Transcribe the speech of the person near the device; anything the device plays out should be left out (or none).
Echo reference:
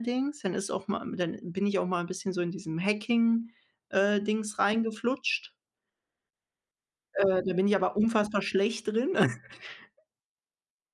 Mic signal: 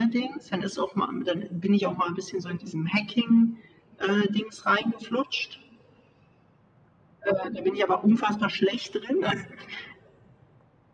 none